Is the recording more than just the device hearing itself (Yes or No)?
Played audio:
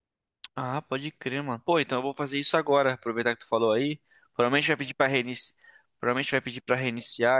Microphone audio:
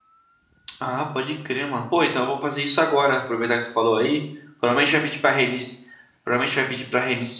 No